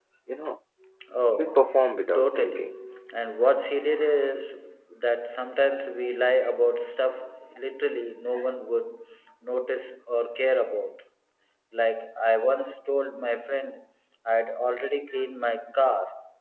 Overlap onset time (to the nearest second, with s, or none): 1 s